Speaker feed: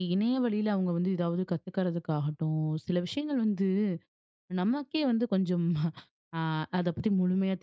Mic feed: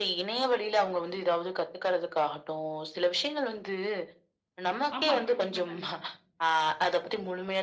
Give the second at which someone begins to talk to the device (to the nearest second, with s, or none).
5 s